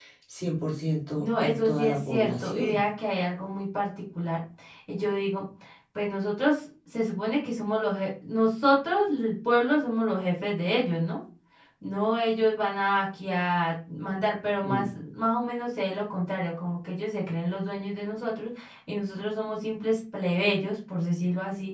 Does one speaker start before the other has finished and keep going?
Yes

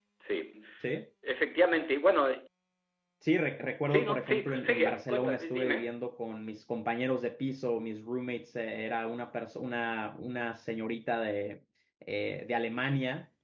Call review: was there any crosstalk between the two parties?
Yes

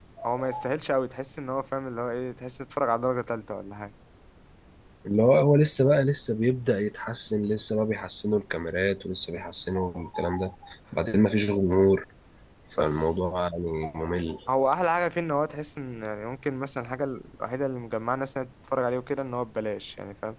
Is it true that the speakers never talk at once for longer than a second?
Yes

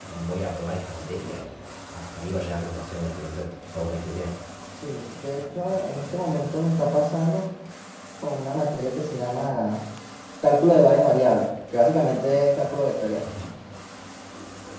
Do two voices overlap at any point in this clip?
No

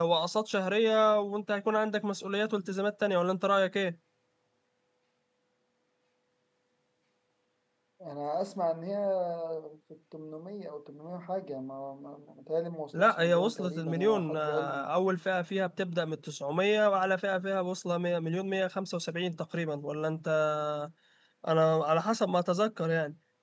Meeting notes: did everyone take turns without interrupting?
No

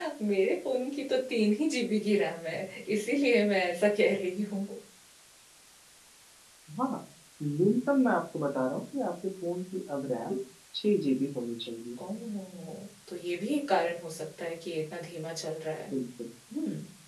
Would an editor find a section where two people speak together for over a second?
No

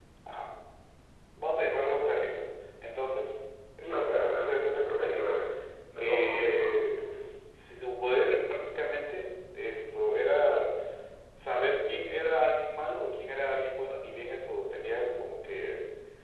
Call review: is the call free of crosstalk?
No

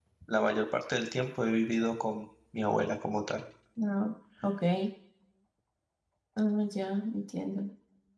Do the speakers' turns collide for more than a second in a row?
No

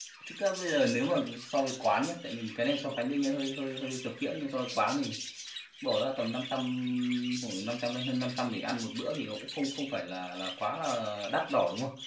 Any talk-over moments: No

